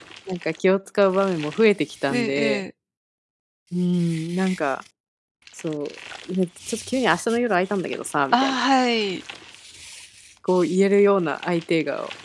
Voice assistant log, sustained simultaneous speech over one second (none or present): none